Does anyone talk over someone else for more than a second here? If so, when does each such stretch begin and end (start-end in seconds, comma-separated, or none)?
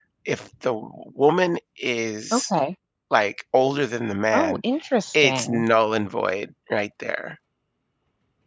none